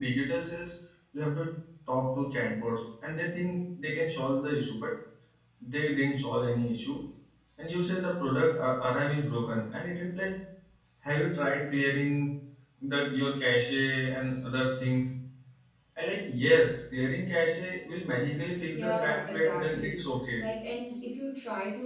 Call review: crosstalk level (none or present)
present